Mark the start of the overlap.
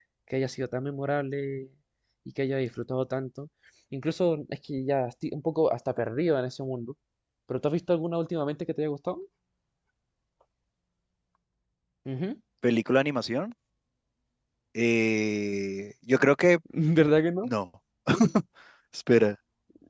none

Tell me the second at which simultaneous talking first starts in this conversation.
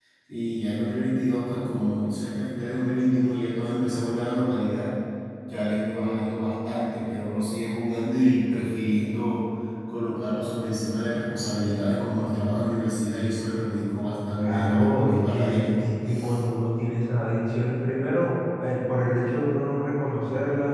14.3 s

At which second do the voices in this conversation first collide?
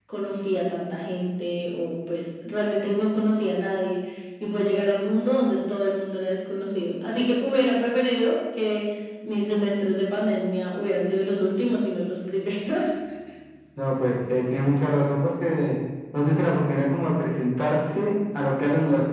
none

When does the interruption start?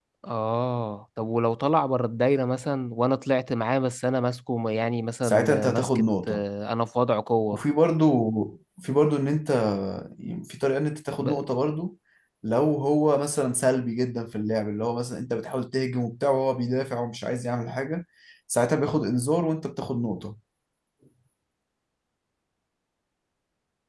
5.2 s

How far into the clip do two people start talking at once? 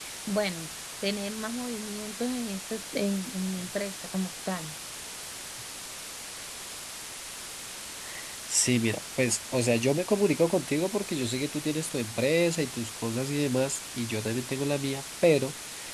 none

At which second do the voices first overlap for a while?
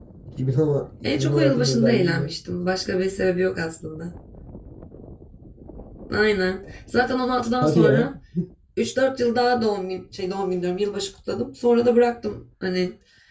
1.0 s

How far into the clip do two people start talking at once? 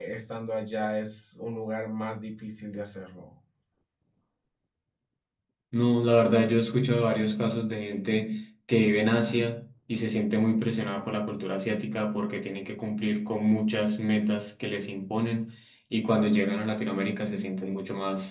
none

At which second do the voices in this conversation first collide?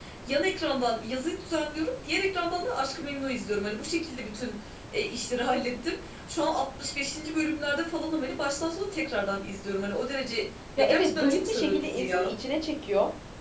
10.8 s

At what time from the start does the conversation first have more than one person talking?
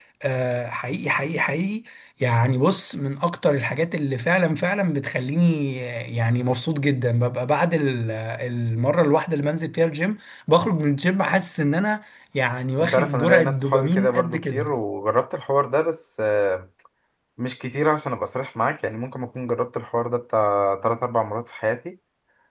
12.8 s

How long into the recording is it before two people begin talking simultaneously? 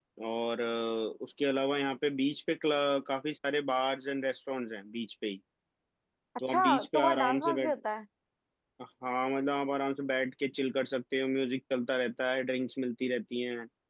6.5 s

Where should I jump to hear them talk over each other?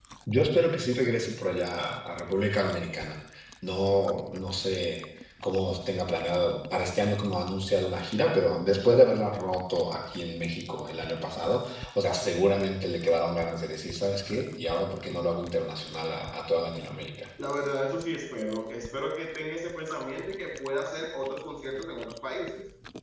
none

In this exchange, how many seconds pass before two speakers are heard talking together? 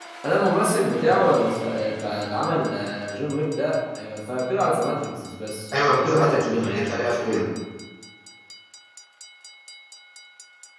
5.7 s

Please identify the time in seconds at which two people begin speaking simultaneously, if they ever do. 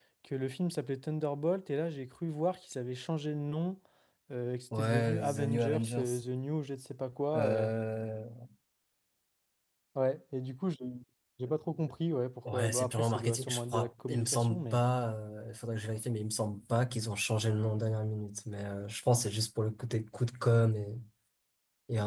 4.8 s

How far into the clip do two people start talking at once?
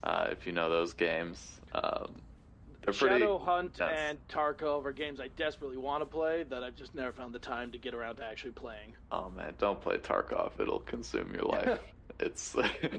2.9 s

